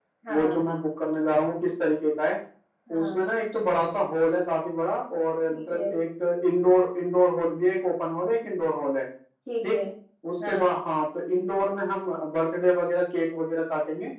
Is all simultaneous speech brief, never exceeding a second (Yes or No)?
Yes